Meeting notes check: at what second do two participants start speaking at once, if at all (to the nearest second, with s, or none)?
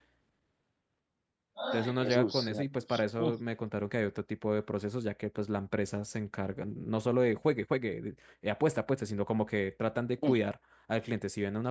2 s